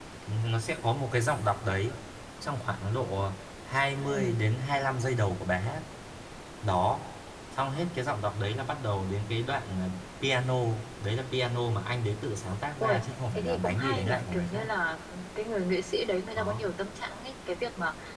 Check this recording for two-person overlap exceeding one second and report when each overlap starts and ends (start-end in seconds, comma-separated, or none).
13.4-14.7